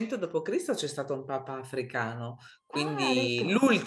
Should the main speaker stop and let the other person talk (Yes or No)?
No